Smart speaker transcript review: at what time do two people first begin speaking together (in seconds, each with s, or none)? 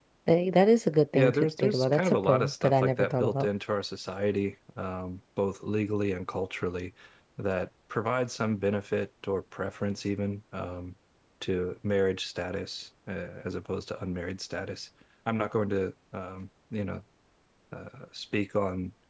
1.1 s